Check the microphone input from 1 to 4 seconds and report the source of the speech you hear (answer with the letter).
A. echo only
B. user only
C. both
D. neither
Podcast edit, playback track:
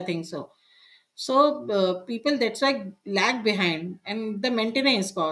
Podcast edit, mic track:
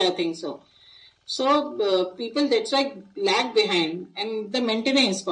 A